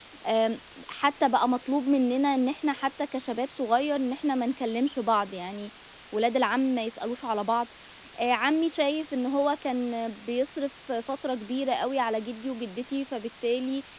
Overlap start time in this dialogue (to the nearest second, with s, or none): none